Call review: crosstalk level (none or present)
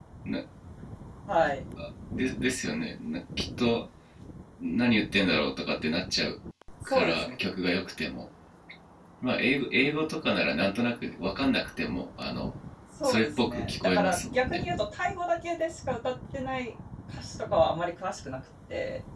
present